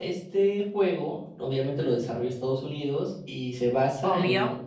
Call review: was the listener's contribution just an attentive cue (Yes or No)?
Yes